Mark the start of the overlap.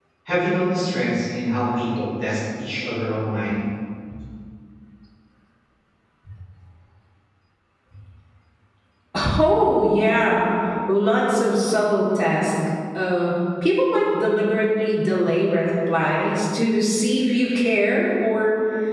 none

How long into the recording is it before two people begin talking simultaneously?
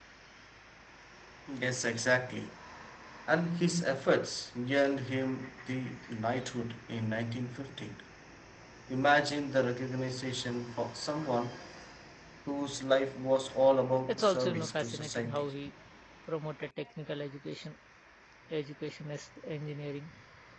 14.1 s

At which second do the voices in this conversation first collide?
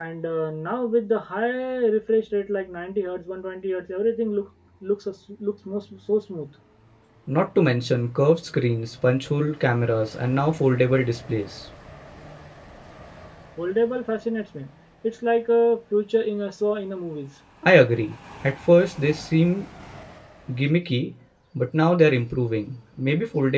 none

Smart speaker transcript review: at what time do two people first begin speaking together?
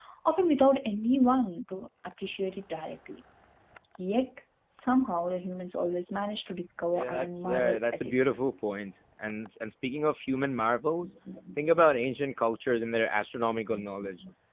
6.9 s

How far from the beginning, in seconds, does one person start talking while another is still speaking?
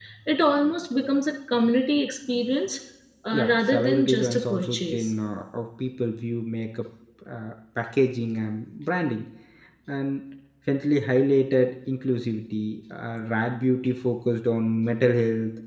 3.3 s

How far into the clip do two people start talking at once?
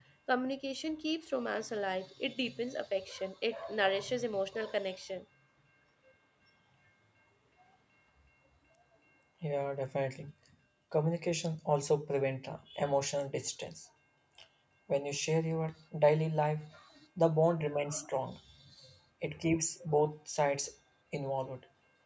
none

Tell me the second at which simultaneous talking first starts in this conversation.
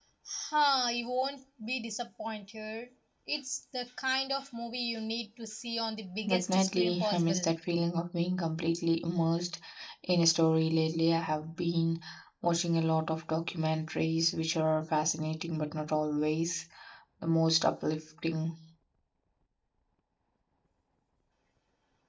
6.2 s

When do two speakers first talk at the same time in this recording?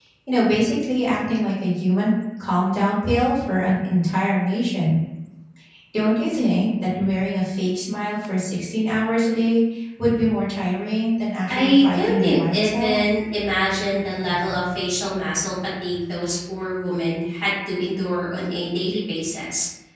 11.5 s

